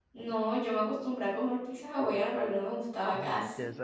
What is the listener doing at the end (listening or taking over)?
taking over